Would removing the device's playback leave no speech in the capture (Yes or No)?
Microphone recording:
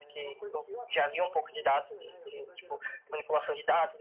No